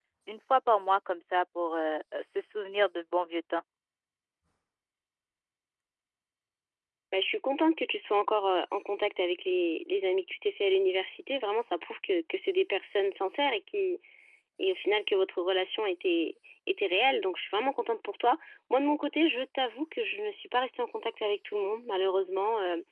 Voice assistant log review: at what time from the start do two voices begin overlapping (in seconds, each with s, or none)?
none